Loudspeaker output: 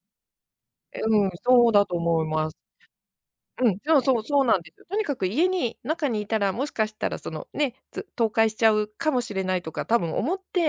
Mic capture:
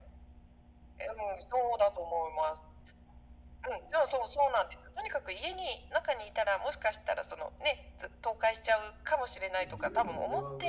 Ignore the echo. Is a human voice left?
Yes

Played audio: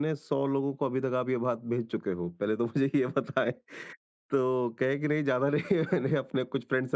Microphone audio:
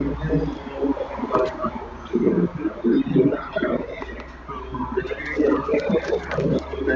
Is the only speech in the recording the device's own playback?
Yes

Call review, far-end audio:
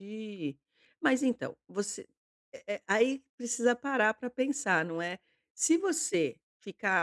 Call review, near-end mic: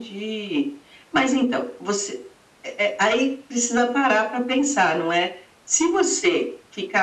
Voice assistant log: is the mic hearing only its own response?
Yes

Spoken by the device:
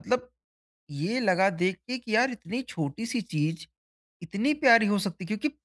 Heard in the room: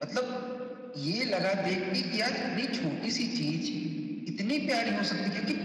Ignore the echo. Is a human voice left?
No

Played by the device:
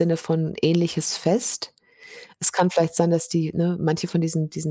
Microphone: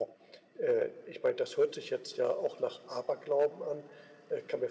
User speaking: Yes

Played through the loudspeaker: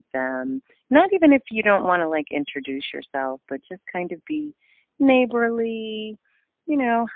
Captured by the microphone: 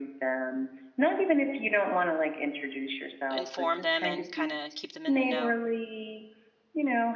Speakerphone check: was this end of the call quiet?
No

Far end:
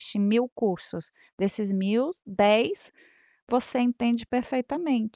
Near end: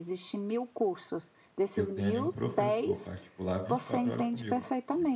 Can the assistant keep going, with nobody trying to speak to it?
No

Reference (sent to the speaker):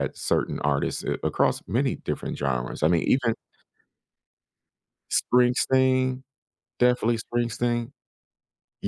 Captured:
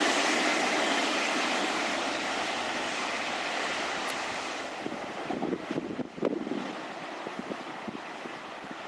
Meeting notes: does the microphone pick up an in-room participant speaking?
No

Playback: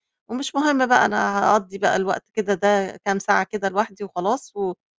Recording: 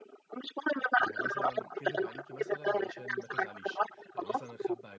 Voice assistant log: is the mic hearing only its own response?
No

